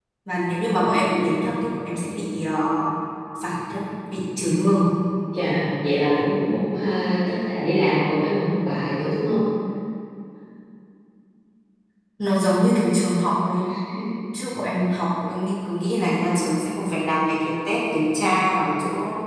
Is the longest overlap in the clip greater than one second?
No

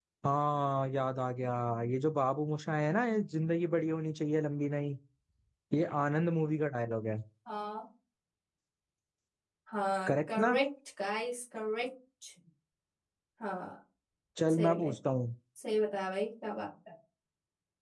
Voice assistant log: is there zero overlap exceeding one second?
Yes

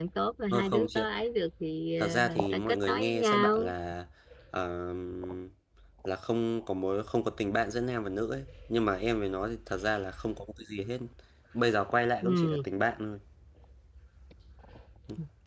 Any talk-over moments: Yes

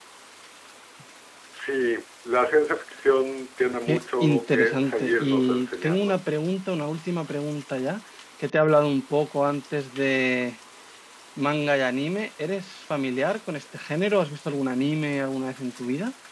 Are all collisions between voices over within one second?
No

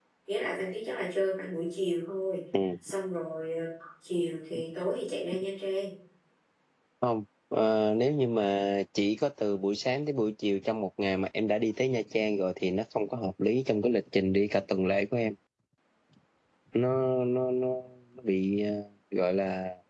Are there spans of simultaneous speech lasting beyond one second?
No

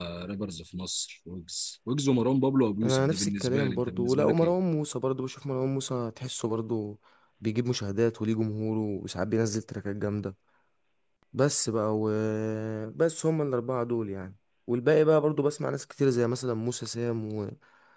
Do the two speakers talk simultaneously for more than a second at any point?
Yes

